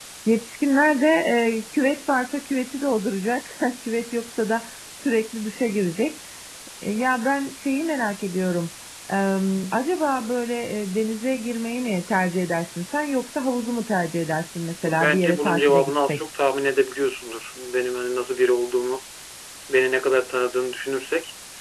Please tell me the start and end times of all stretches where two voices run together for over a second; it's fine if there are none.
14.8-16.2

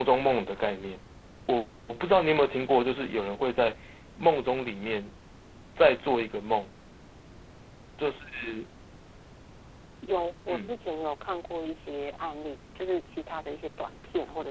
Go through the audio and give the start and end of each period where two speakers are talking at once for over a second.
none

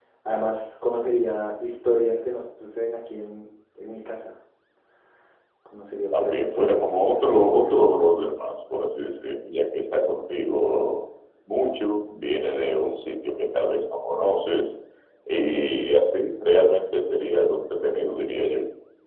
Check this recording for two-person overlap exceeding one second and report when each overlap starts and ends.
6.1-7.7

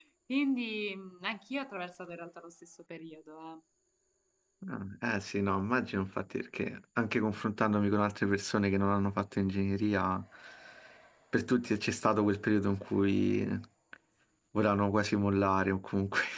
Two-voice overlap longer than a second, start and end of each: none

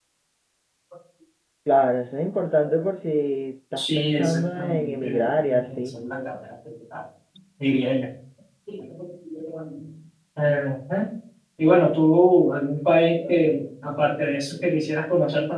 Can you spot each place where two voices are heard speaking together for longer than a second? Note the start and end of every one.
3.8-5.9

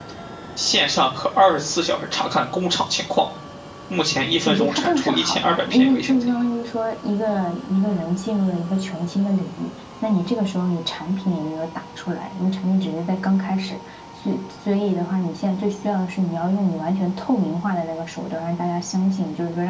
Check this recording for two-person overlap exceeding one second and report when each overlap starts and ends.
4.5-6.2

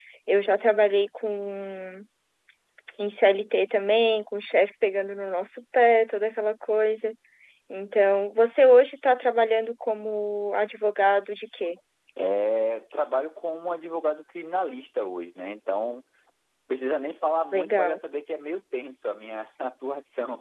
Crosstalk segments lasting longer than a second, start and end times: none

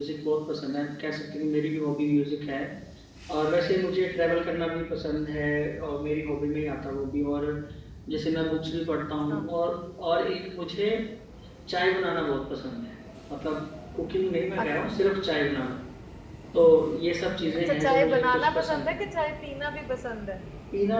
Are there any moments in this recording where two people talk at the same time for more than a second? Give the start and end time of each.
17.7-19.0

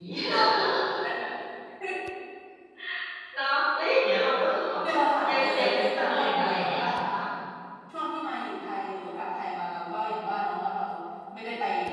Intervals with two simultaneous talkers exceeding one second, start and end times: 5.3-6.8

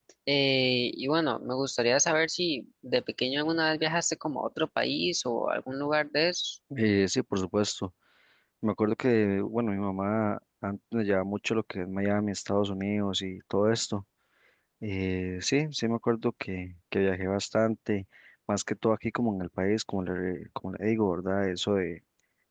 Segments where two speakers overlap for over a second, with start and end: none

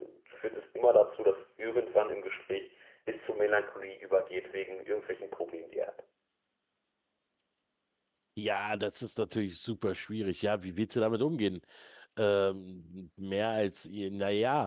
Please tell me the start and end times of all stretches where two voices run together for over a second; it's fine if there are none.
none

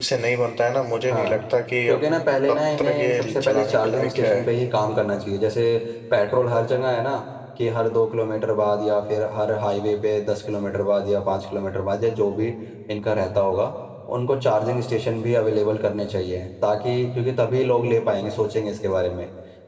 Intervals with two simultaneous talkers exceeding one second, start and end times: 2.5-4.4

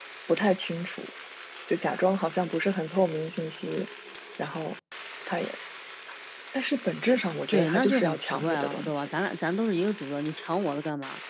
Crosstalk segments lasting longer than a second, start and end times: 7.5-9.1

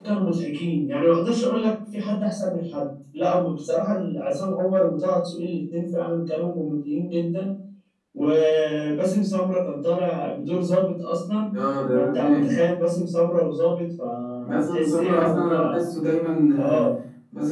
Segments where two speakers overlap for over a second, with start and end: 14.4-15.9

